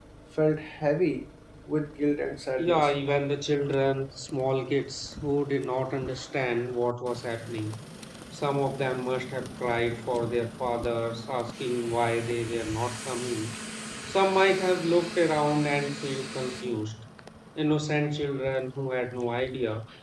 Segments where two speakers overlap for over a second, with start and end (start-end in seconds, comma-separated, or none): none